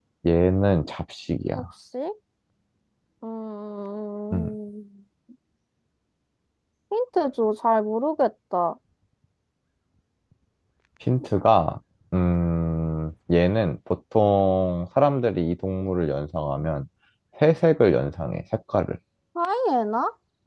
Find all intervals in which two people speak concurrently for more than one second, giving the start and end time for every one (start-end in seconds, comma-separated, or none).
none